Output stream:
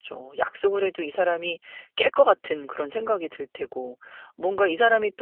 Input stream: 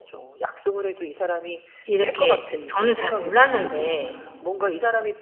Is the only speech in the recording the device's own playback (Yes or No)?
No